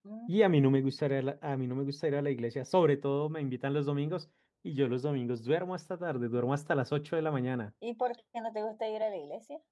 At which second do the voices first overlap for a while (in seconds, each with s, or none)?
none